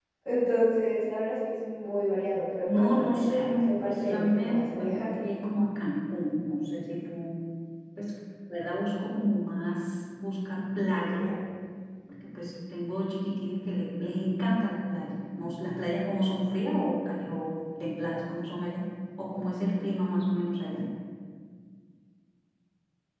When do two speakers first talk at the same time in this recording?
2.6 s

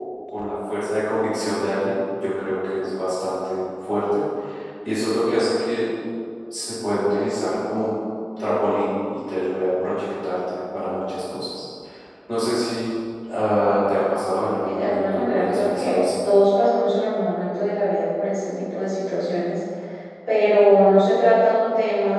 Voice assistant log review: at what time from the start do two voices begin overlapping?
14.6 s

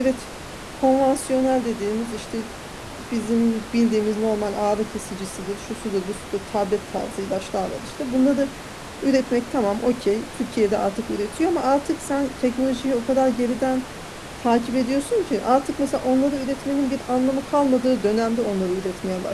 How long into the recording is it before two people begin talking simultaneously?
none

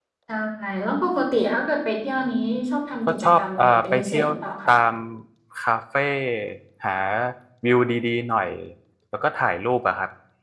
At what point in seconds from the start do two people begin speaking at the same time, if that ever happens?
3.1 s

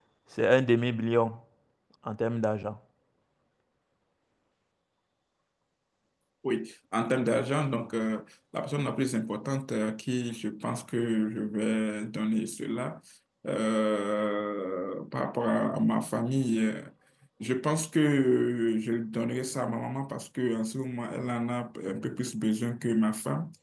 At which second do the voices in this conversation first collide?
none

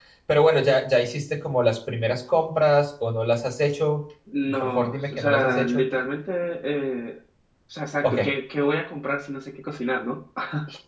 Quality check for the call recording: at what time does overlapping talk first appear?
4.6 s

